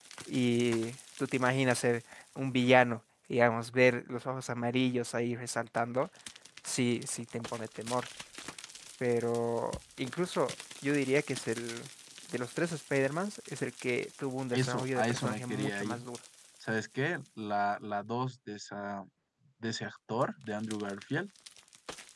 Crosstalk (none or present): present